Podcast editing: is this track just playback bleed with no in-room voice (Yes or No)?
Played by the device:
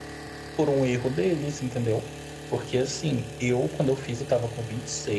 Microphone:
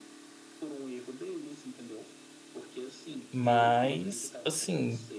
No